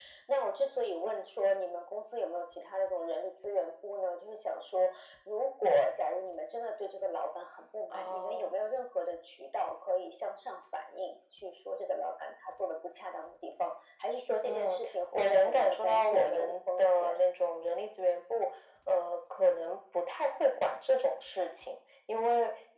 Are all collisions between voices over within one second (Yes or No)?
No